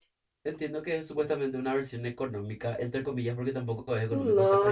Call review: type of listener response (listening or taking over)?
taking over